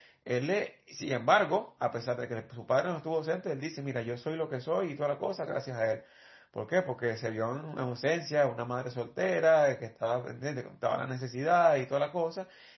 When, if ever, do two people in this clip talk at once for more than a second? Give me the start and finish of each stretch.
none

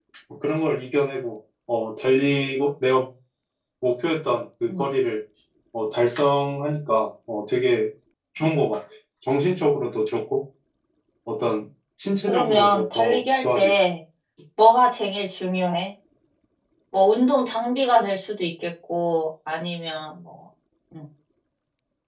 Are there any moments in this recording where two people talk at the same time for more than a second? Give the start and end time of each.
12.3-13.7

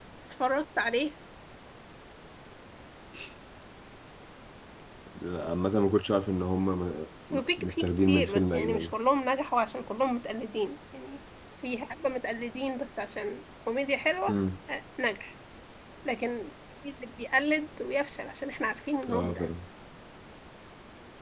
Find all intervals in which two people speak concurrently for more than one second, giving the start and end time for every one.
7.3-8.9

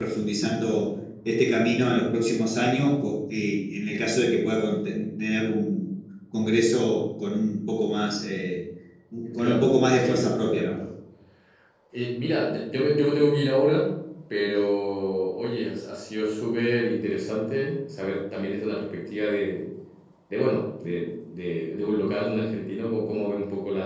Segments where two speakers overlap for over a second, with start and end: 9.3-10.7

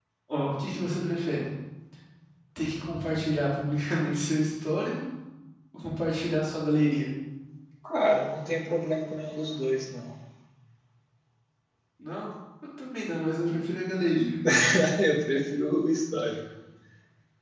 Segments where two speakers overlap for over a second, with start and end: none

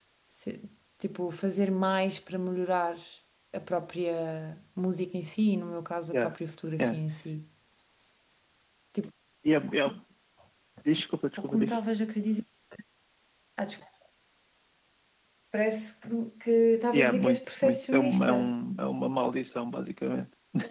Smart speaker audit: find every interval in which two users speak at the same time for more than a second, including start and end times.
16.9-18.3

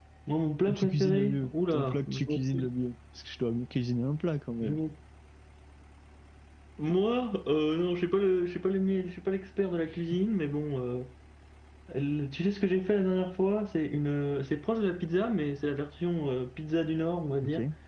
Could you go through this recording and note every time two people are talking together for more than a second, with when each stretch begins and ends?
0.7-2.7

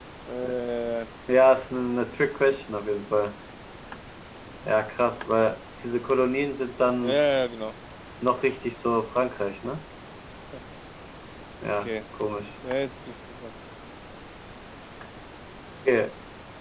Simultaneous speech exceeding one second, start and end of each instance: none

